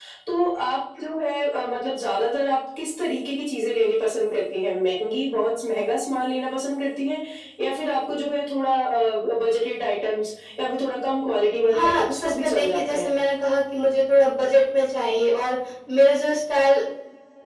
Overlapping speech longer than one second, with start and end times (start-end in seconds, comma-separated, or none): 11.7-13.1